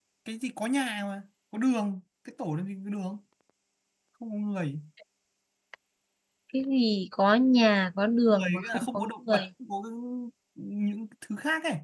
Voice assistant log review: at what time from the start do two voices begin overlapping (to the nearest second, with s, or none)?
8 s